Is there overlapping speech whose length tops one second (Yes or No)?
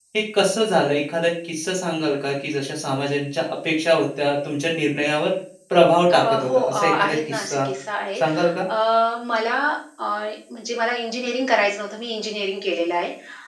Yes